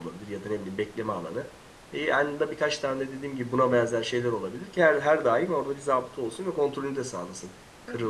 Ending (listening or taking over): taking over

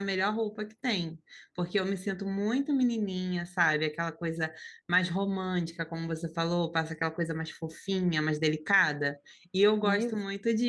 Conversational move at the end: listening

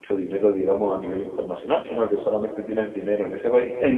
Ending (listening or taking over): taking over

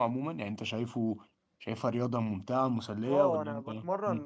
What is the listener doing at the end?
taking over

